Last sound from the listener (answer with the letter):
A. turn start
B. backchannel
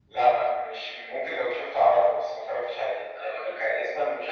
A